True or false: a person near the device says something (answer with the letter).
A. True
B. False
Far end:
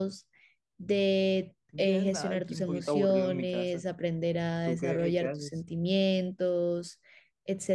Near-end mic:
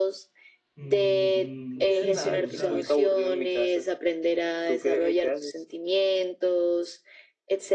A